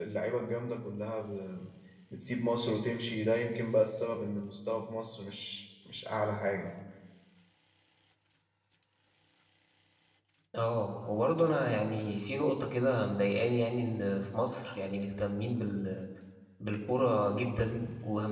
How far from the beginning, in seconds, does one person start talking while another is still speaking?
none

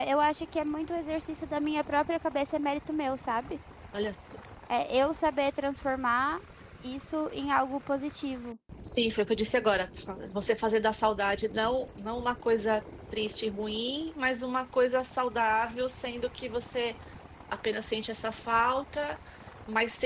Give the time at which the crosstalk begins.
none

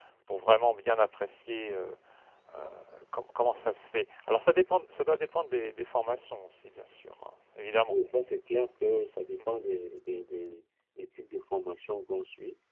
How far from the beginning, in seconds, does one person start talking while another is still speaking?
none

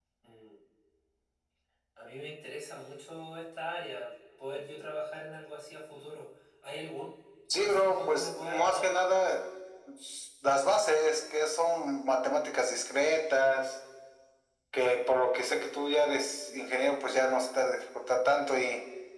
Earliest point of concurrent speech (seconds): 7.5 s

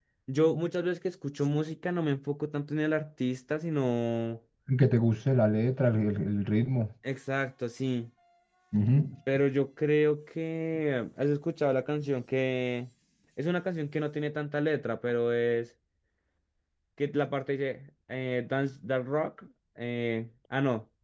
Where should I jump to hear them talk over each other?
none

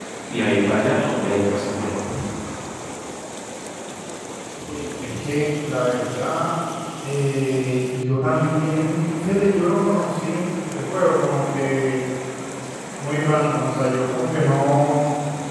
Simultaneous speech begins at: none

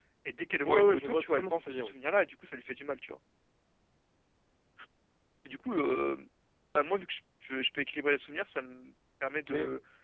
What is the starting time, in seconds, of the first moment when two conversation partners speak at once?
0.6 s

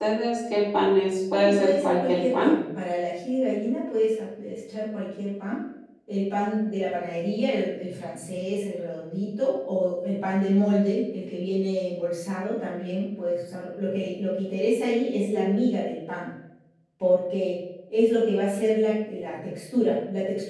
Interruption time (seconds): 1.3 s

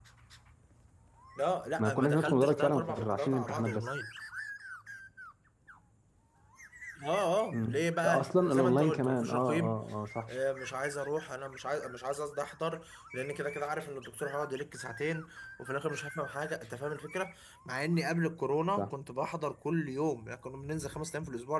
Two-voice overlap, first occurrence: 1.8 s

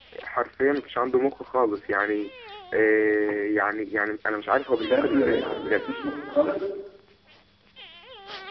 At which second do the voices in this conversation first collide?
4.7 s

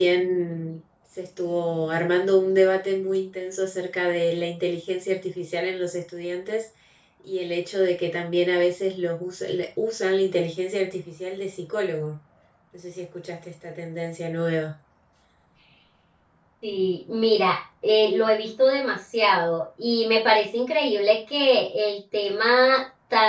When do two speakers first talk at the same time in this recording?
none

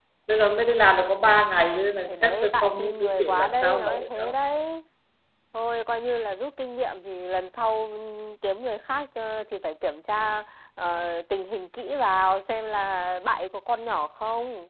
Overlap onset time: 2.1 s

